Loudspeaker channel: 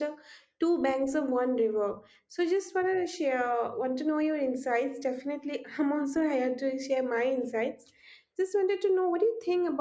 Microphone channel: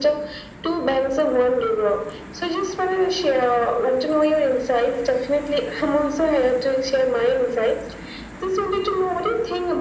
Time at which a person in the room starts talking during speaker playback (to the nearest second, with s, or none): none